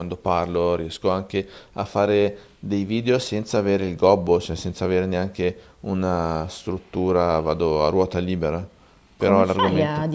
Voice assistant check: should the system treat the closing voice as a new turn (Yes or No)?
Yes